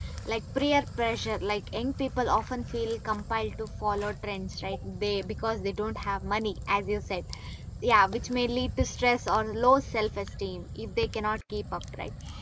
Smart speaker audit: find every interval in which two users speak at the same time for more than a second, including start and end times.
none

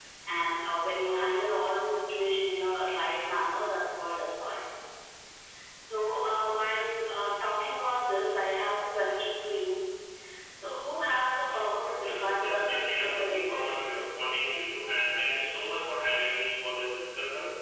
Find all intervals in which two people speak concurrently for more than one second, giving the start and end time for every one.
12.0-14.1

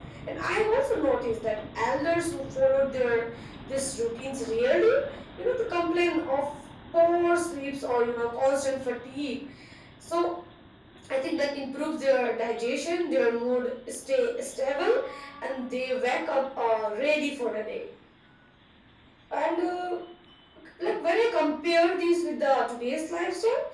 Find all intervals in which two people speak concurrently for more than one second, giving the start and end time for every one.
none

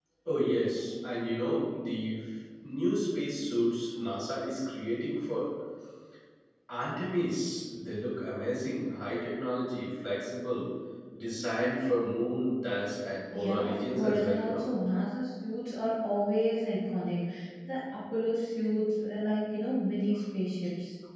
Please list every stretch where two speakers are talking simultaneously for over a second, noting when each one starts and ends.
13.3-14.6

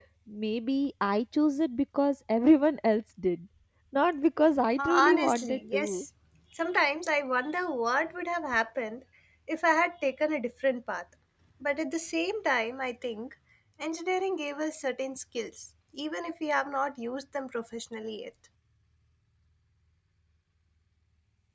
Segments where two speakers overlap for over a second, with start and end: 4.8-6.0

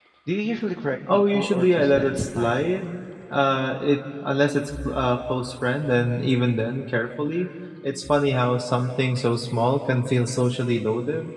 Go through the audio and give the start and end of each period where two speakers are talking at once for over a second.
1.1-2.5

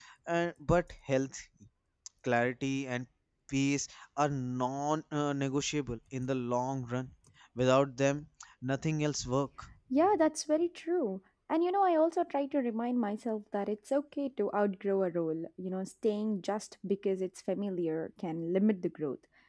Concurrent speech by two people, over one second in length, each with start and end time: none

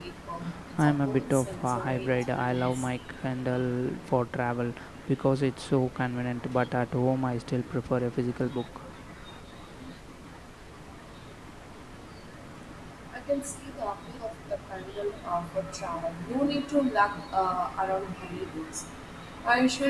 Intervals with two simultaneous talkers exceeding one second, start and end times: 0.8-2.9

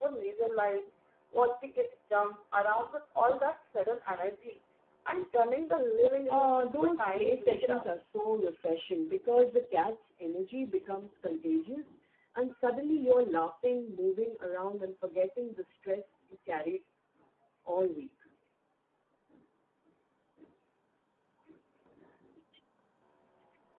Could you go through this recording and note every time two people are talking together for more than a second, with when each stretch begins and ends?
6.3-7.9

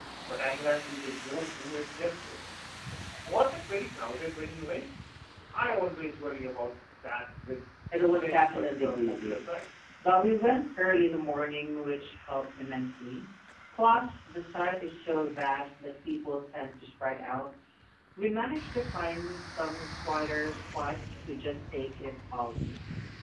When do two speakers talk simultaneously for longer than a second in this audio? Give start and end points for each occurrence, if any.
8.1-9.4

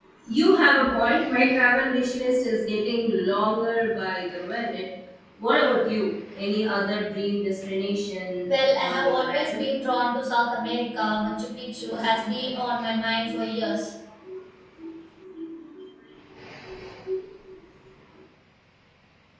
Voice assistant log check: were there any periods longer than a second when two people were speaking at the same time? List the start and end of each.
8.4-9.7

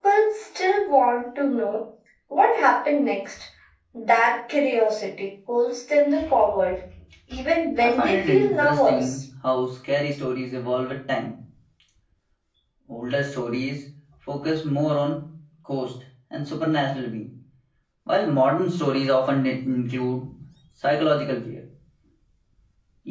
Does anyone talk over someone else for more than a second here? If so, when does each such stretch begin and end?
7.8-9.1

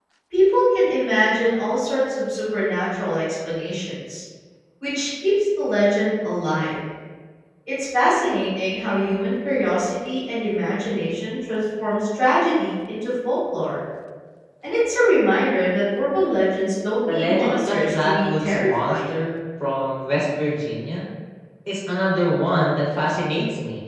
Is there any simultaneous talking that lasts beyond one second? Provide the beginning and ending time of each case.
17.1-19.1

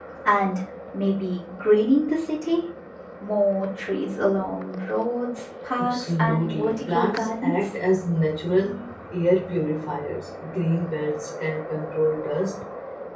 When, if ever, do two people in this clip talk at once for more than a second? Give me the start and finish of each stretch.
5.8-7.5

